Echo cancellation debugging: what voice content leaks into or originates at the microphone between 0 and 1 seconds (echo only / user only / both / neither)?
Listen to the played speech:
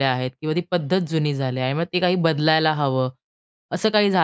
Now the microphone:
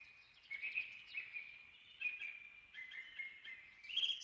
neither